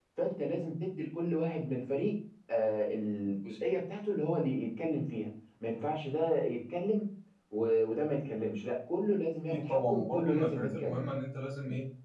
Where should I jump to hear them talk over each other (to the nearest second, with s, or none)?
10 s